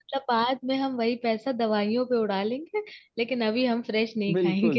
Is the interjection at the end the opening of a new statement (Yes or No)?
Yes